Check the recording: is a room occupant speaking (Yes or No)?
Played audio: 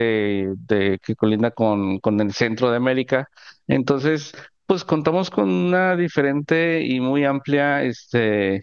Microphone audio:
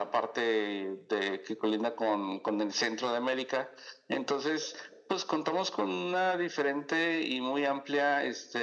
No